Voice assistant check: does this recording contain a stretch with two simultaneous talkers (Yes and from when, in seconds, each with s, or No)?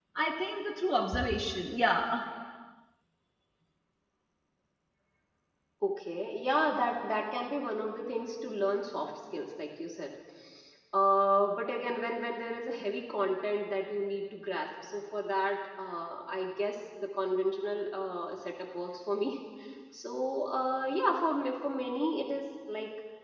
No